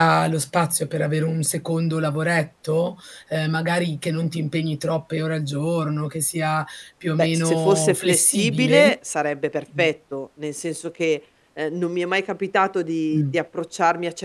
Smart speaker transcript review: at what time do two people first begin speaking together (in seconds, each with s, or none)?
7.2 s